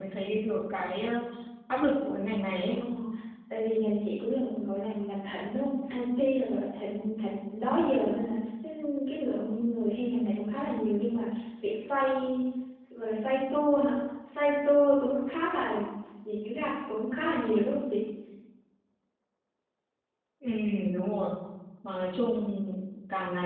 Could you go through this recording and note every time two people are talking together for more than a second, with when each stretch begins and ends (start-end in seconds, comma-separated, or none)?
none